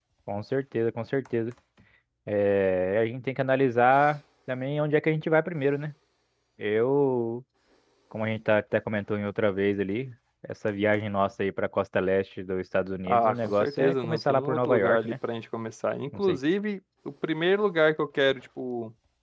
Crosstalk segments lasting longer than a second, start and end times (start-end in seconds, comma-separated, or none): 13.1-15.2